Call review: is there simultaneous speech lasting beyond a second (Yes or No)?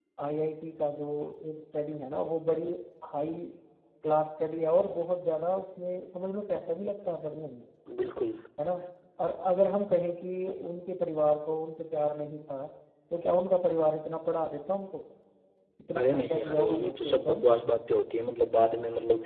Yes